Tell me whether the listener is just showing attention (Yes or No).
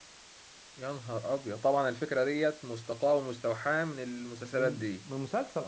No